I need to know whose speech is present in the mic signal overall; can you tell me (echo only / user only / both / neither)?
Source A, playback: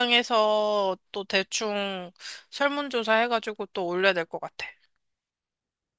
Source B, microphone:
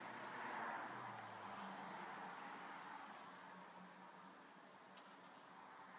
neither